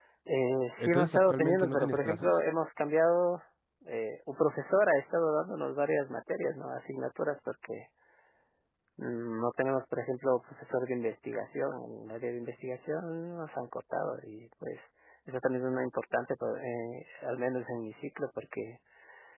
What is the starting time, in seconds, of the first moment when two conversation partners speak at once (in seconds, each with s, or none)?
0.8 s